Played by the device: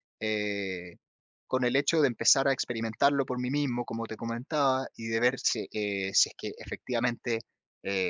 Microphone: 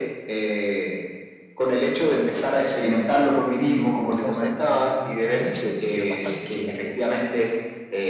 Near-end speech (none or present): present